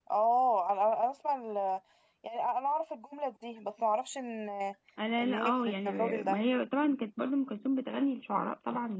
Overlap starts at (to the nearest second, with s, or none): 5 s